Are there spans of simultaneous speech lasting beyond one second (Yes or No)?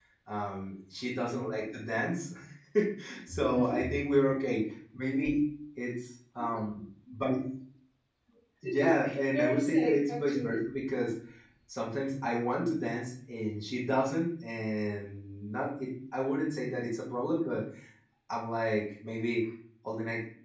Yes